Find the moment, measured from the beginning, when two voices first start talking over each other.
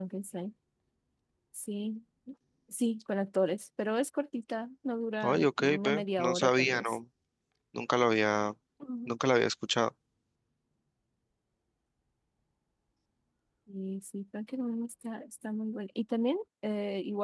5 s

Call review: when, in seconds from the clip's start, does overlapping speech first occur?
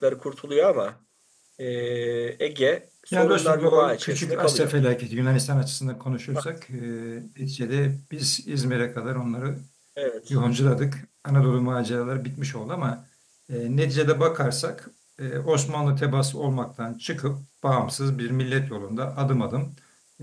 3 s

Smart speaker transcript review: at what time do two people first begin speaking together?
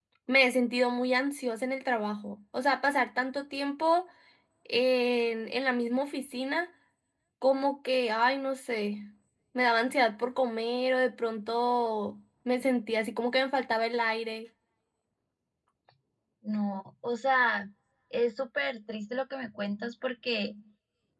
none

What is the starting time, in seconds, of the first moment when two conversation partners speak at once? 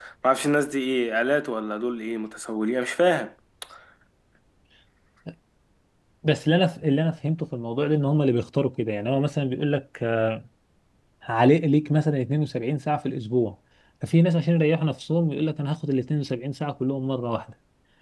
none

